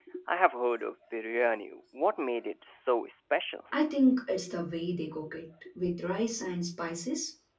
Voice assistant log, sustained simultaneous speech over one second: none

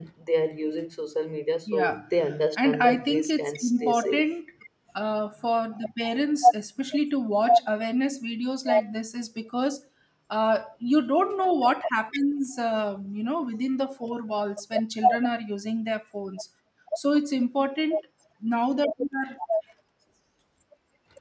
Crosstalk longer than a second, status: present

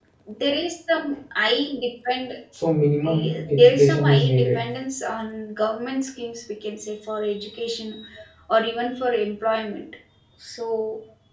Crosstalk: present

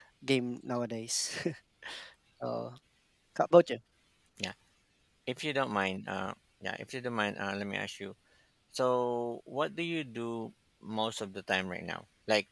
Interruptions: none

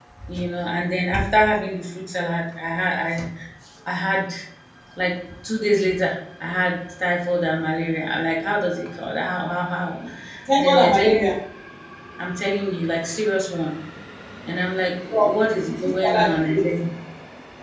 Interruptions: present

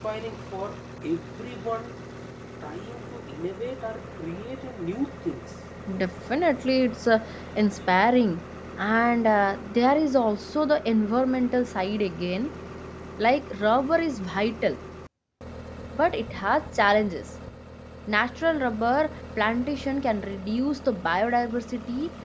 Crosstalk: none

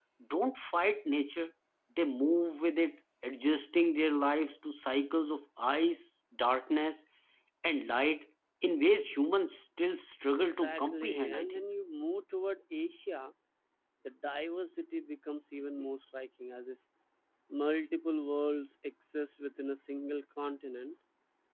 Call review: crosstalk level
present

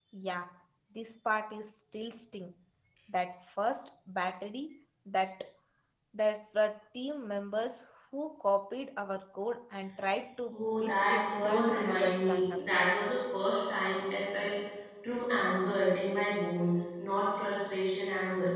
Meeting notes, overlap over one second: present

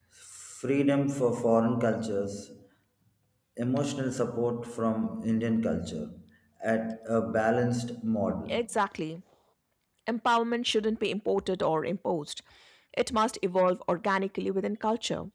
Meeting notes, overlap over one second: none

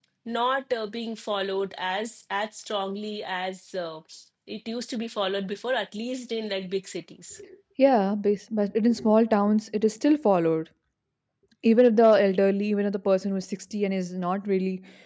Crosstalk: none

